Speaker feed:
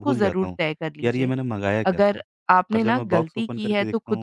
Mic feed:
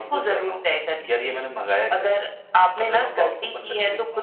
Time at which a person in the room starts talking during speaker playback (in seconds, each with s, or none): none